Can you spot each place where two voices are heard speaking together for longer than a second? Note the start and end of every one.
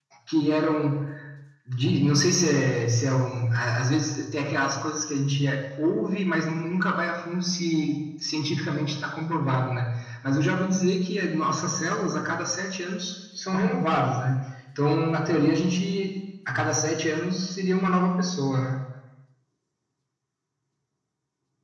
none

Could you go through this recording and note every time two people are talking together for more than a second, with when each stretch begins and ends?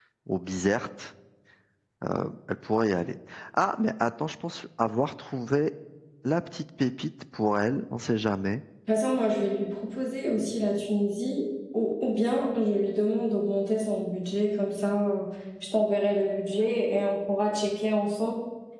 none

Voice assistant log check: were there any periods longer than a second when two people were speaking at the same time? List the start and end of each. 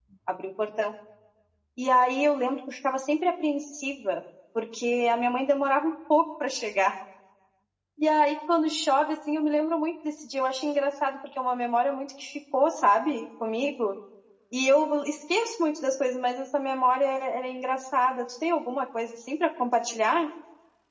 none

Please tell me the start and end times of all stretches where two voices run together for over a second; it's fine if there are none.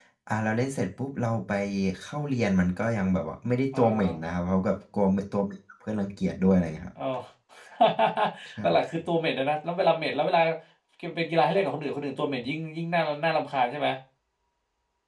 none

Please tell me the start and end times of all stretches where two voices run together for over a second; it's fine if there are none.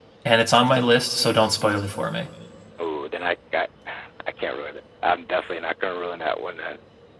none

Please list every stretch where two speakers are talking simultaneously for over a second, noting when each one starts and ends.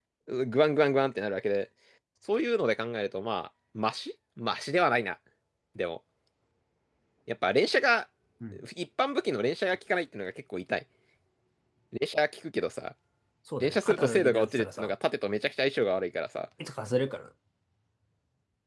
13.6-14.9

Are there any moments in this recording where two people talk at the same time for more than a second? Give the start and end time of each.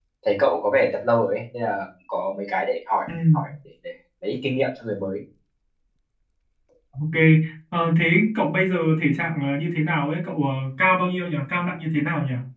none

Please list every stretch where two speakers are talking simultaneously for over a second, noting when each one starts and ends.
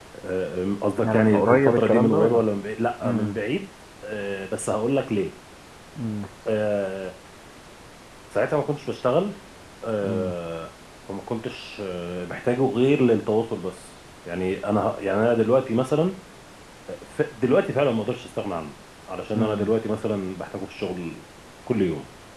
1.0-2.4

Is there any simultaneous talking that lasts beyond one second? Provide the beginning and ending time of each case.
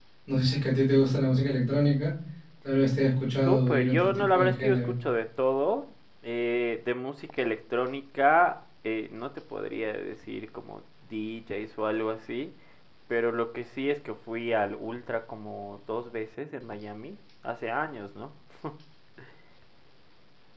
3.4-4.9

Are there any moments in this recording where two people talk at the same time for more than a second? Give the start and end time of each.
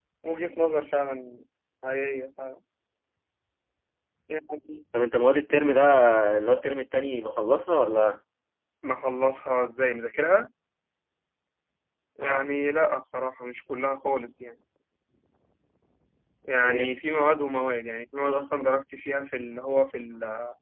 none

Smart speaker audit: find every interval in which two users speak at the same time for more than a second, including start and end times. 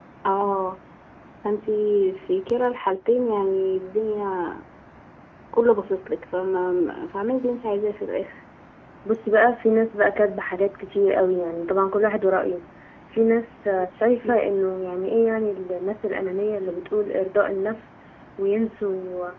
none

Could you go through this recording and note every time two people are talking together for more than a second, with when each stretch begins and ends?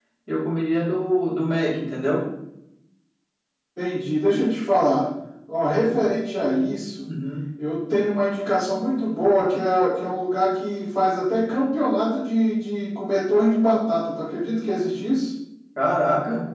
none

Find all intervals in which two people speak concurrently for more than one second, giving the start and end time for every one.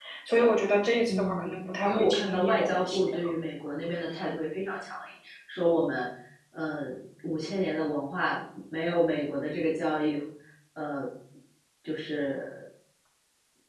1.1-3.3

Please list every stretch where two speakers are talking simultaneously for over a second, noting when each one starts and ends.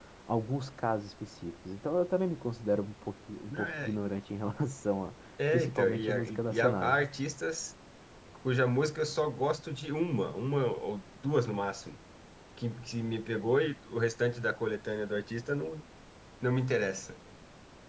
5.5-7.0

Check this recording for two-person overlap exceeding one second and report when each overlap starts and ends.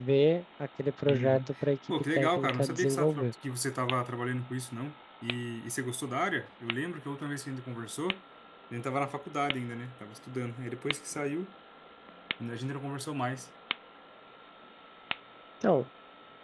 1.9-3.3

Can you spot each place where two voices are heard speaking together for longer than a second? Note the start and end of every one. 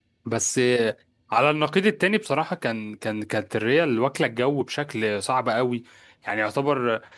none

